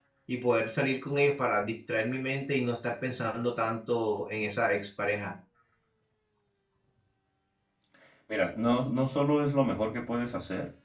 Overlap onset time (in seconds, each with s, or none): none